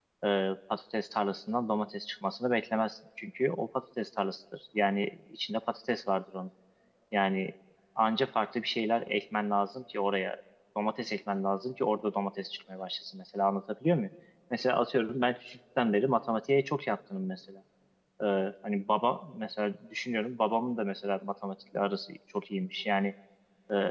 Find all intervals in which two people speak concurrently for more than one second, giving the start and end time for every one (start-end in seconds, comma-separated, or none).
none